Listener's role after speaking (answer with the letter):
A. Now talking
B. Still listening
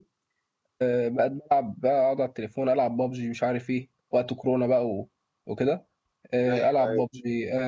B